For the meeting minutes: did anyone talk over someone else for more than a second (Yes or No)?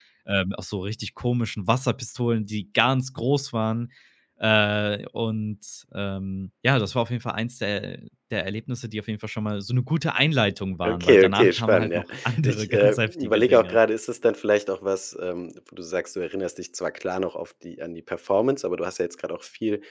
Yes